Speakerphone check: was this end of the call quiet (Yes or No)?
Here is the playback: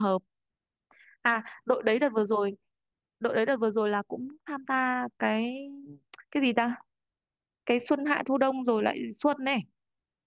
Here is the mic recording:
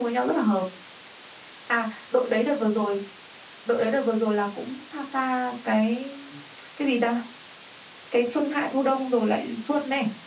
Yes